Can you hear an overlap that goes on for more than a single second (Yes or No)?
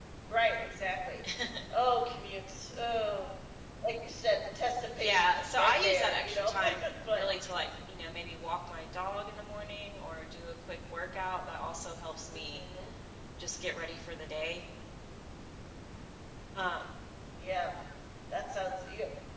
Yes